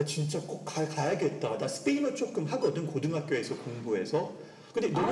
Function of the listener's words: listening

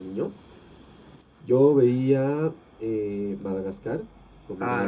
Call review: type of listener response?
taking over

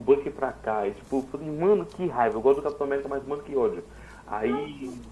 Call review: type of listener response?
taking over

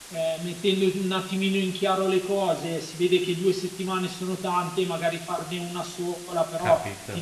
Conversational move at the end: listening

